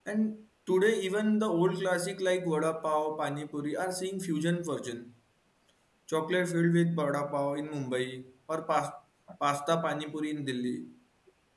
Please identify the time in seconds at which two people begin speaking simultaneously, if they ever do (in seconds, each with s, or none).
none